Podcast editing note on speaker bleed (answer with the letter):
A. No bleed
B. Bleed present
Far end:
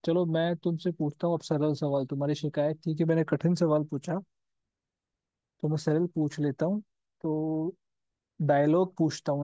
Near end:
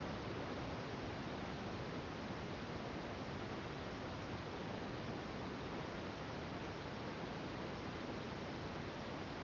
A